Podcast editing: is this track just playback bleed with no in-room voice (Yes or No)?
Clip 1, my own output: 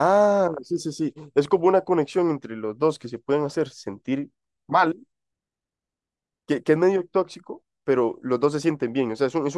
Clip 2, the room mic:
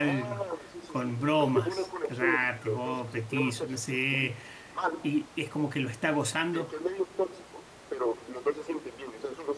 No